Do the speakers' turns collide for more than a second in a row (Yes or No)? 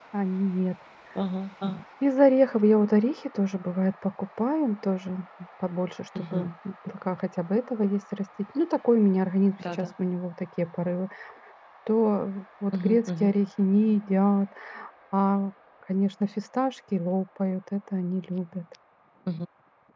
No